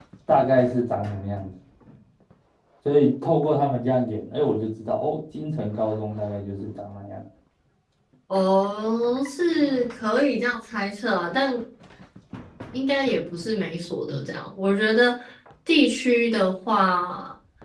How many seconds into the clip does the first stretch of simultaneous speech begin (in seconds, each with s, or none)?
none